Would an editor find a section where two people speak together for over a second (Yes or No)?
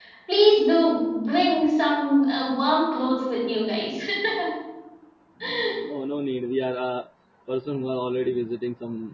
No